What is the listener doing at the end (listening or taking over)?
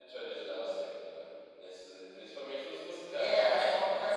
taking over